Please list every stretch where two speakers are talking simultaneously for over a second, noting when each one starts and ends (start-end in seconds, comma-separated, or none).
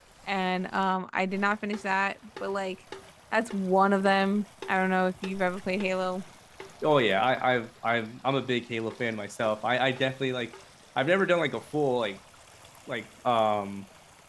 none